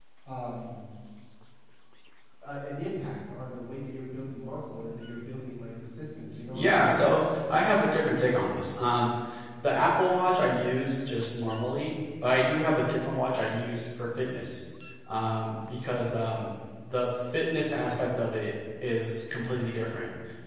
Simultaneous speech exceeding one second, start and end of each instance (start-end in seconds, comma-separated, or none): none